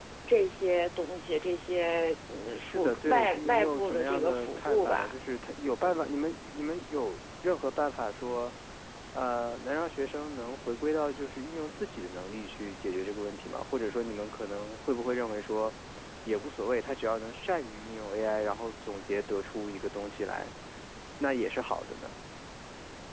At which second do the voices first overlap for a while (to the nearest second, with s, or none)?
3 s